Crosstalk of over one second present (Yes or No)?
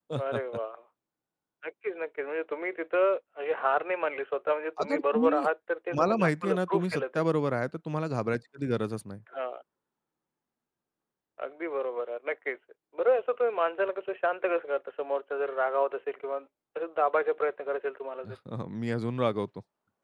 Yes